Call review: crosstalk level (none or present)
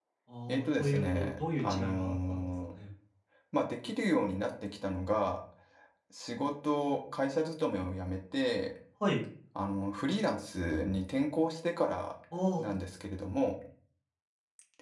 present